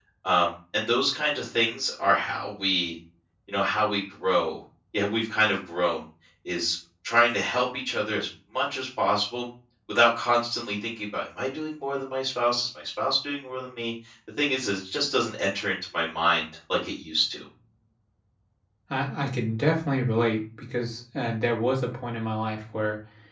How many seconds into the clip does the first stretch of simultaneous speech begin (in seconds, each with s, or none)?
none